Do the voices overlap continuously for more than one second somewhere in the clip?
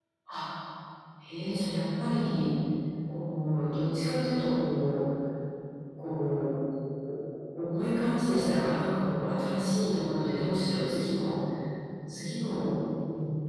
No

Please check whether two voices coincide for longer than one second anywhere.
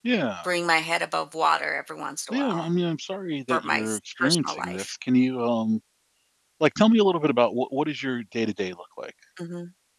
Yes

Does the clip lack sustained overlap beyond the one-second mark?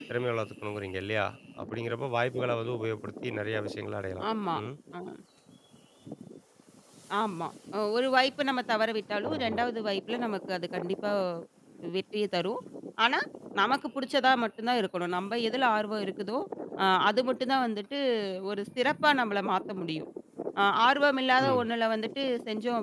Yes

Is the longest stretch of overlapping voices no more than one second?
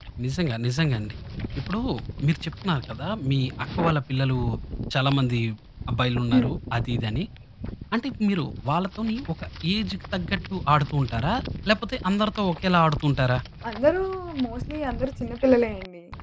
Yes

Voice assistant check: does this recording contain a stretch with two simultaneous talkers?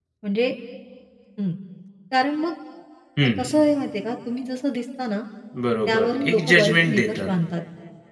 Yes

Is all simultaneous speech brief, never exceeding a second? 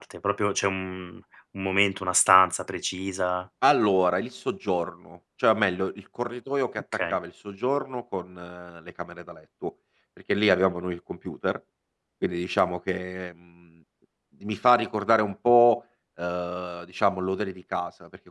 Yes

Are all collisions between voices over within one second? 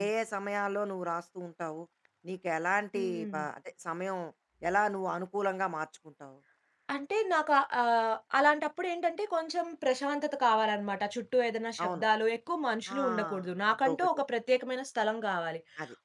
Yes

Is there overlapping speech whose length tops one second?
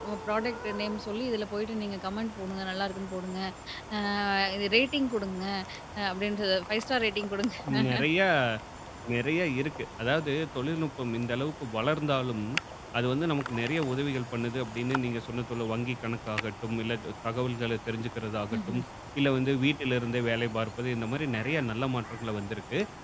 No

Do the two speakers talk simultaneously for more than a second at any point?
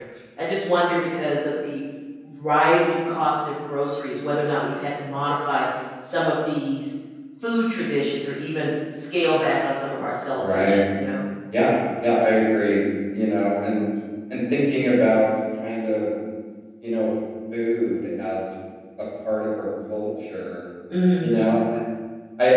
No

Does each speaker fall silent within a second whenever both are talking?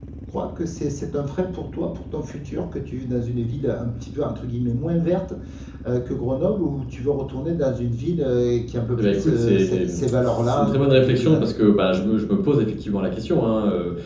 No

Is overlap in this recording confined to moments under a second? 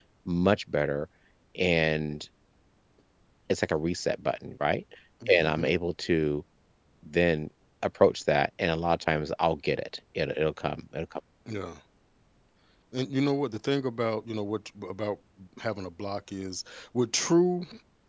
Yes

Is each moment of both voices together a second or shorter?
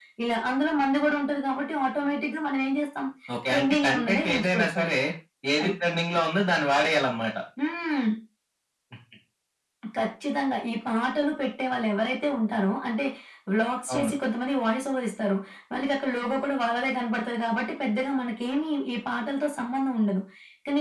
No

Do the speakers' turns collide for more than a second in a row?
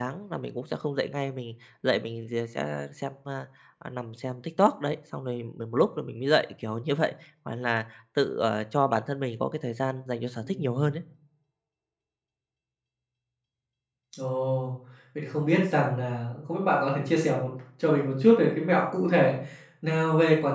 No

